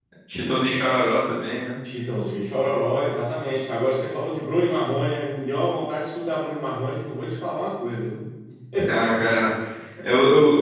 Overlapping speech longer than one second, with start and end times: none

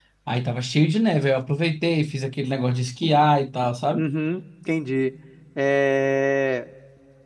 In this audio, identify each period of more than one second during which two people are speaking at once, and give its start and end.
none

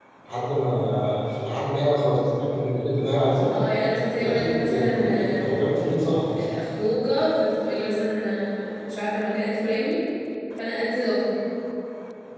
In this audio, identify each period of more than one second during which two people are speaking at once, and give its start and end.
4.2-5.6

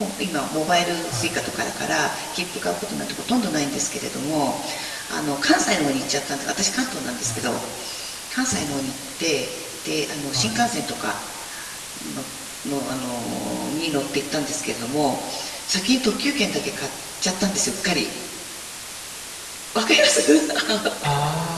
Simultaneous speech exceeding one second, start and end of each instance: none

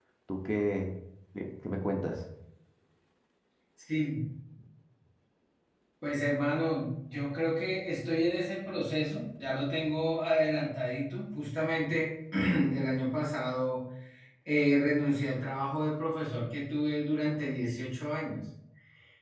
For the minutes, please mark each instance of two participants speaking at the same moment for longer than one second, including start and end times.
none

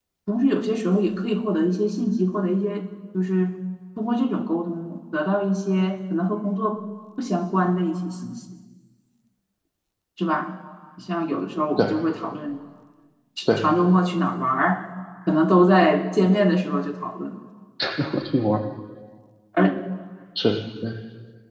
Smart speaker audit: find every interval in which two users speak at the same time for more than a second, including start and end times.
none

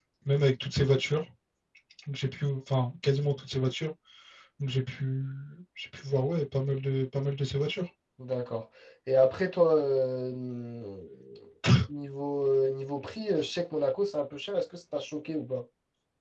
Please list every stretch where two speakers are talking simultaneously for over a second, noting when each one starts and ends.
none

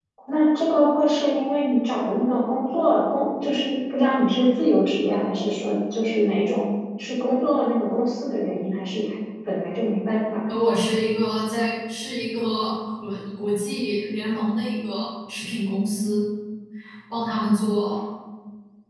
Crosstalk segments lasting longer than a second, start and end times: none

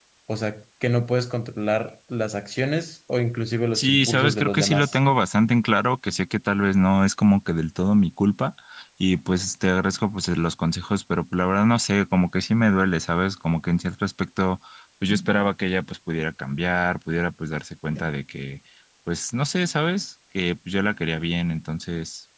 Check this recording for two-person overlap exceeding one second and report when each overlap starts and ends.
3.7-5.0

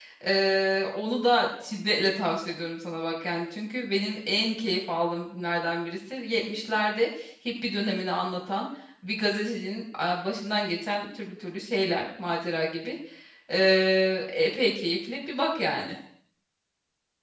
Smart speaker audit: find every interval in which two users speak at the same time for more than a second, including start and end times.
none

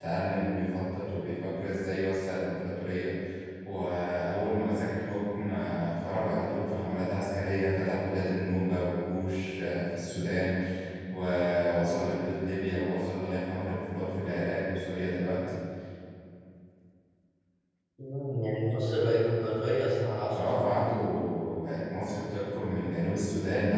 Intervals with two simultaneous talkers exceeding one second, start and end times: none

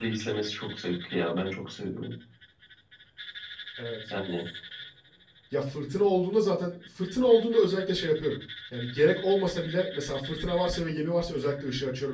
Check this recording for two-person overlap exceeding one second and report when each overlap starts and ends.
none

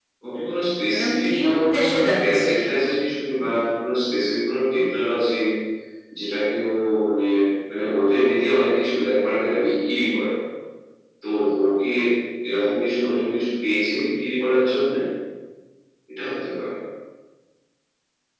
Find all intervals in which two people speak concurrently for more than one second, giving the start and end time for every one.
0.9-2.5

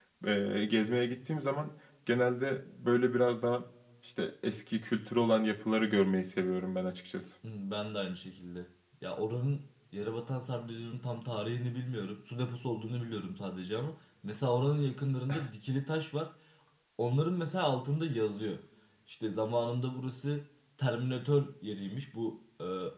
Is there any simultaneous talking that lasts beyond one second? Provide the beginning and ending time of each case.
none

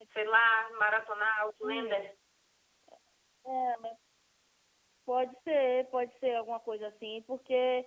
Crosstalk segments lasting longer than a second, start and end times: none

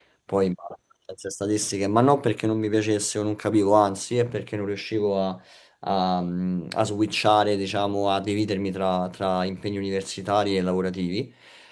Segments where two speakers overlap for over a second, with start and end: none

